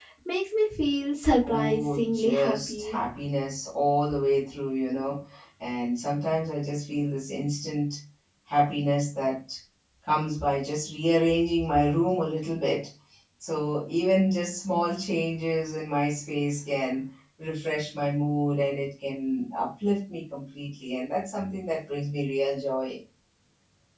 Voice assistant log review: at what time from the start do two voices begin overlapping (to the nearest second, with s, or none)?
1 s